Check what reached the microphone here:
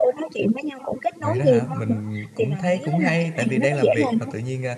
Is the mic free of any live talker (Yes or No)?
No